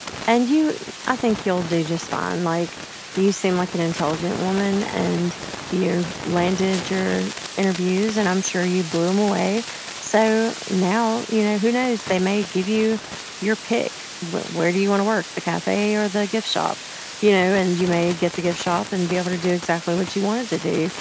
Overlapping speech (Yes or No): No